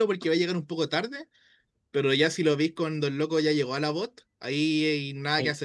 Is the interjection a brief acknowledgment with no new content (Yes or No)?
No